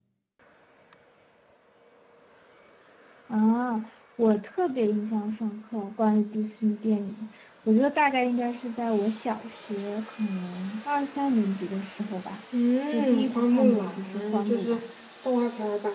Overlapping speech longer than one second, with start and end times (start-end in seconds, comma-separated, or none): 12.9-14.8